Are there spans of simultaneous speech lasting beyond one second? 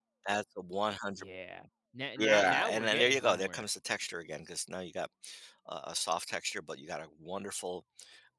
Yes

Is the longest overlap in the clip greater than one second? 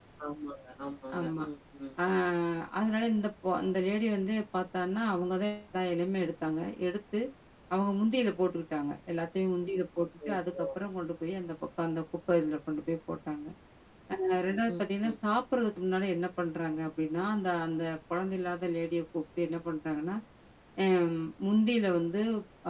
No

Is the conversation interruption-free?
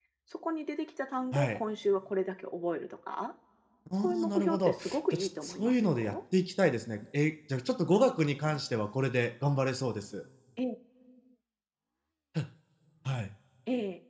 No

